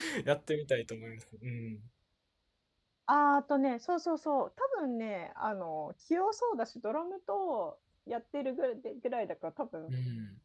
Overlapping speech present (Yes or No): No